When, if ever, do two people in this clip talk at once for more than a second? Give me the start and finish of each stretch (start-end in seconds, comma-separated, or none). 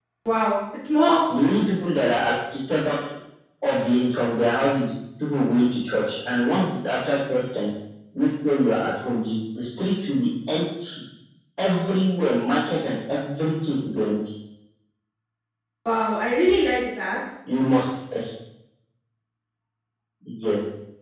none